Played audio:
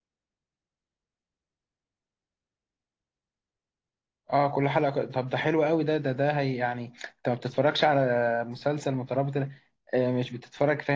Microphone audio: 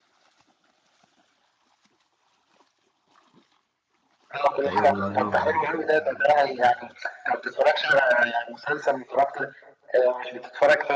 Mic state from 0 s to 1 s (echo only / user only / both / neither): neither